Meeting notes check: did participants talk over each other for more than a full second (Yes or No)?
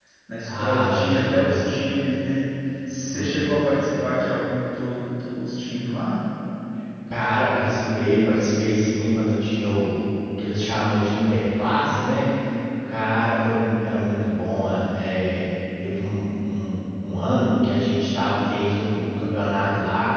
Yes